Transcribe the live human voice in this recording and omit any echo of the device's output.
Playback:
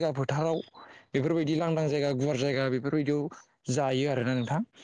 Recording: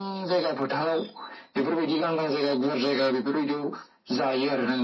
none

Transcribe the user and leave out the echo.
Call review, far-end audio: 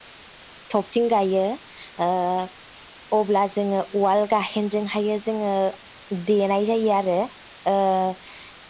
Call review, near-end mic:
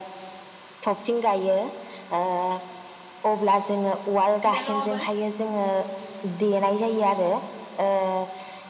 बिनानावाबो।

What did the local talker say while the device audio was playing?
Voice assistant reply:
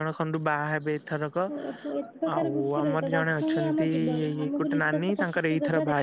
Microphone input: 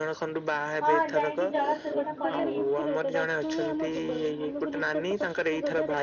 ହଁ ଯାଇକି ଜଳ ସେବନ କରିନିଅ।

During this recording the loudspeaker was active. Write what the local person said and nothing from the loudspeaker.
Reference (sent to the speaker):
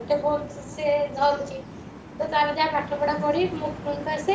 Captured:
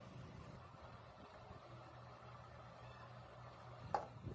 none

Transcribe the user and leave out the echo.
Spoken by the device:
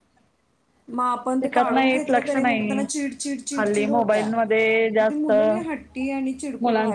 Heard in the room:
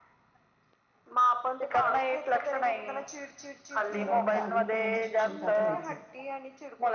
मला वाटतं दहावी पर्यंत शिक्षण त्यात व्हायचं.

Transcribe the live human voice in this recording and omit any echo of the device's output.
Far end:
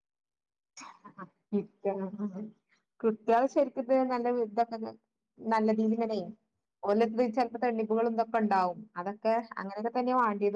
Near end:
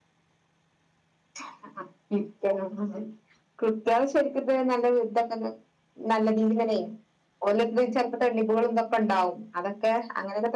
none

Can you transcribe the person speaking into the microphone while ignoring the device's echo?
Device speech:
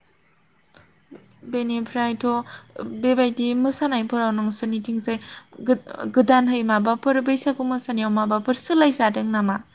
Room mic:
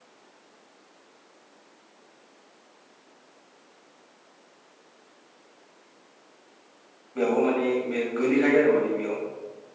बेयावबो माने बे गोलैखायो आरो माने बेयाव

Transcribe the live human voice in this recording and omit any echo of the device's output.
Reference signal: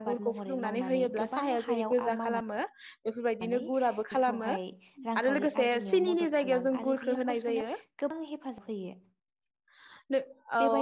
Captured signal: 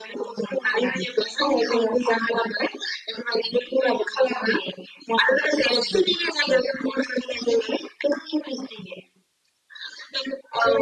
none

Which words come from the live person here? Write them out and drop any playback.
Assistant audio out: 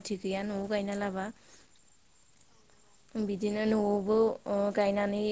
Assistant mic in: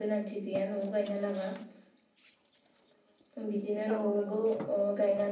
औ नंगौ

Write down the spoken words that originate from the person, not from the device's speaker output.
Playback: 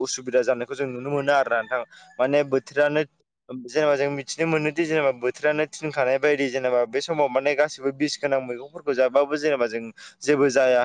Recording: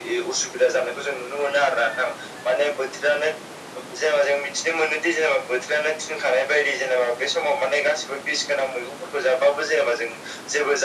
none

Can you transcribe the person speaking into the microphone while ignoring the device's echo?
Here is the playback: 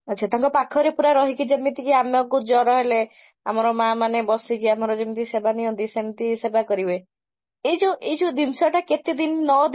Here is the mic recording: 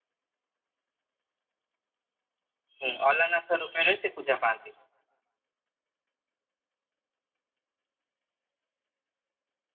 ହଁ ଅଲାନଥ ରୂପ ର ସେ ପୂଜା ପାଆନ୍ତି।

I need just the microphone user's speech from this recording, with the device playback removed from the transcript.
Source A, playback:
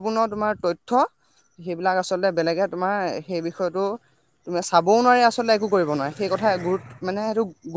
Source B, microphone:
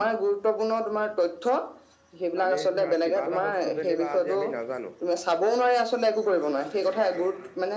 আমি ধৰা কিবা এটা বস্তু যেনিবা আজি আমি নাজানো

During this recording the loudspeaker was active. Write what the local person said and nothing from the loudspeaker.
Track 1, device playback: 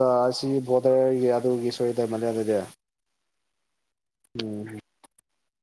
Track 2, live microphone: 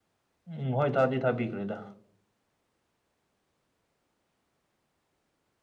ꯎꯝ ꯍꯣꯏ ꯊꯥꯗꯤ ꯊꯥꯕꯤꯈ꯭ꯔꯦꯗ

